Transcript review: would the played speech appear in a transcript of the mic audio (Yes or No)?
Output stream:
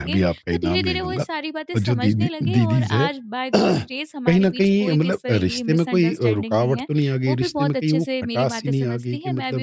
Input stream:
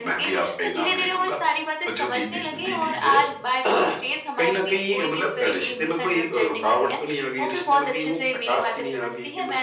Yes